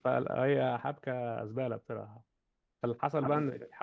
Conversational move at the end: listening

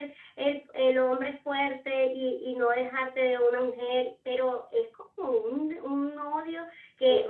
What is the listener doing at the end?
taking over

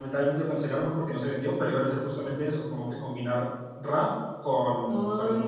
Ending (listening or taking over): taking over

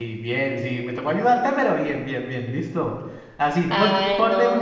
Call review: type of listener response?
listening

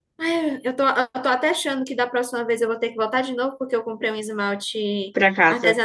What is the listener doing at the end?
listening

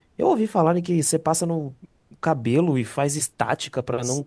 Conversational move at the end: taking over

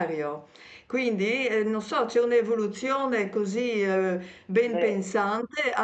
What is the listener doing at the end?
listening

